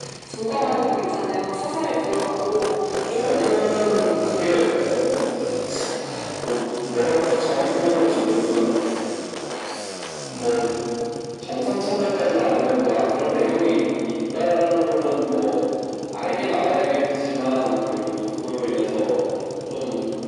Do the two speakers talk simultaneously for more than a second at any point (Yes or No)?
Yes